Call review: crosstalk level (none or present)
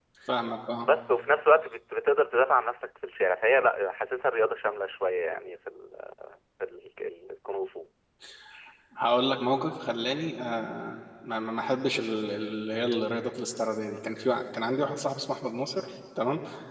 none